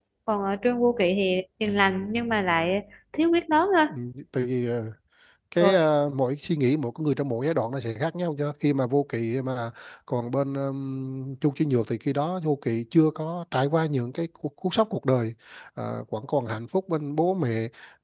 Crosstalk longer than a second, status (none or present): none